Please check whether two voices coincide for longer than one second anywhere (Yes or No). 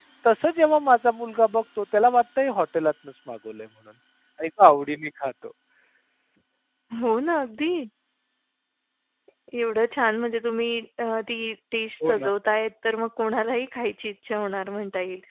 No